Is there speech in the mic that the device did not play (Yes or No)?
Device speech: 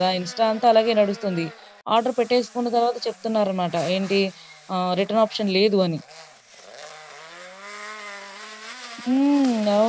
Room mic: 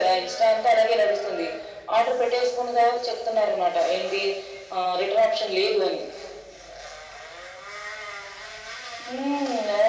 No